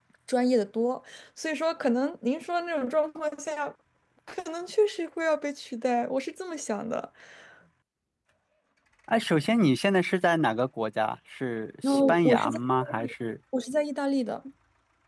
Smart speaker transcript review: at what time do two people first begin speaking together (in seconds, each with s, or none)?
11.8 s